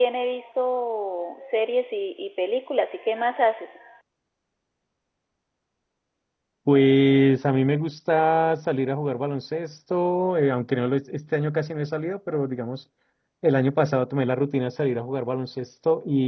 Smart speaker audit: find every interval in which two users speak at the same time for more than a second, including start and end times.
none

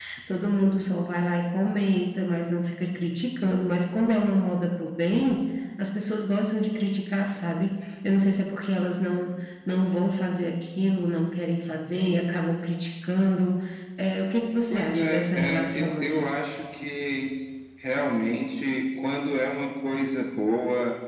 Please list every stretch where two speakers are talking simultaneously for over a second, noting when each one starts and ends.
14.7-16.4

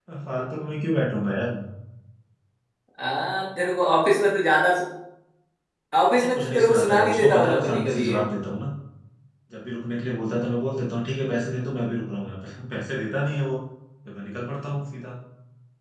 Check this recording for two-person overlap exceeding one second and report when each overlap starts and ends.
6.1-8.2

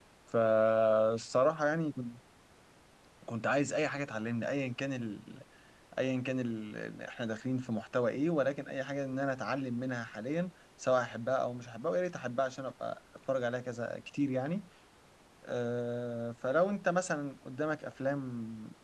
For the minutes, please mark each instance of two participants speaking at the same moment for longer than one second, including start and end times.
none

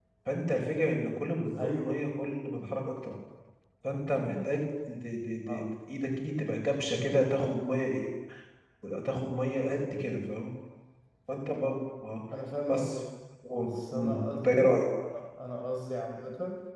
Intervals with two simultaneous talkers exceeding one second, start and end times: 13.6-14.8

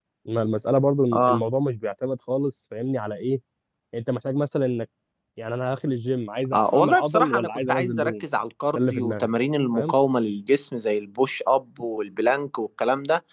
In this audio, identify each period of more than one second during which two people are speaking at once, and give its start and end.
6.5-8.2

